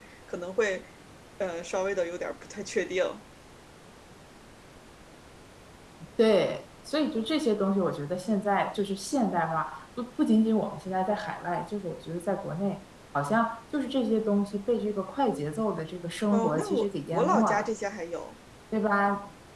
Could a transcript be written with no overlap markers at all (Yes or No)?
No